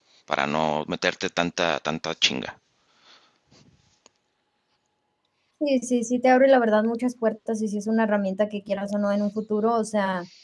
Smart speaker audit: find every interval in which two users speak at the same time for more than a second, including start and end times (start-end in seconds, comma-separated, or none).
none